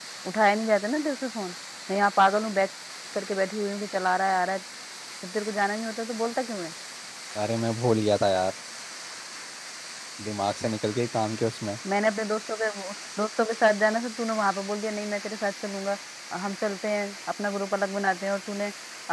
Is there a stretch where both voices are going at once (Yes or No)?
No